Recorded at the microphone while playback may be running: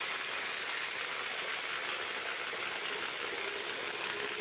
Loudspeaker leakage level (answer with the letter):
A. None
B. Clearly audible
A